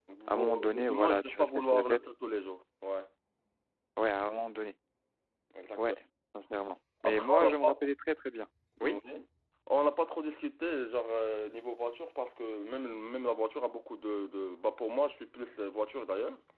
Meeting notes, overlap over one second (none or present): present